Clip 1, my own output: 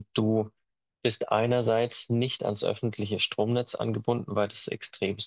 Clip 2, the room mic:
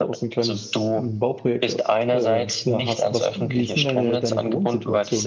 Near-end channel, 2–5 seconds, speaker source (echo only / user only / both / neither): both